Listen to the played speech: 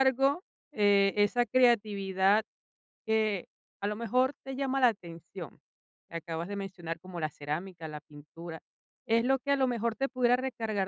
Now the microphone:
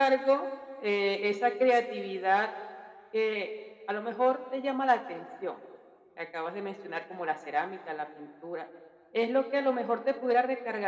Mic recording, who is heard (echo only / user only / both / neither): echo only